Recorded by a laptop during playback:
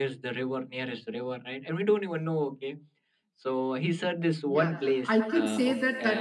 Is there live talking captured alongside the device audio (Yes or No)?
Yes